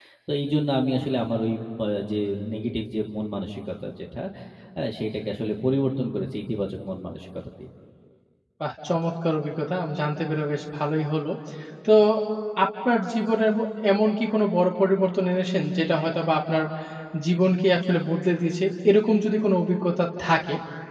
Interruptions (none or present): none